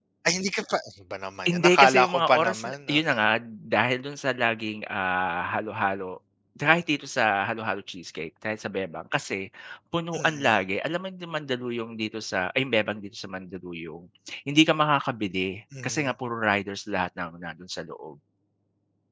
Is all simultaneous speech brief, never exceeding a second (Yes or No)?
No